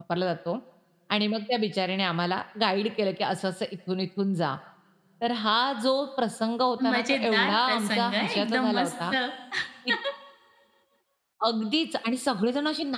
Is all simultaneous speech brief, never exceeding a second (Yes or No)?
No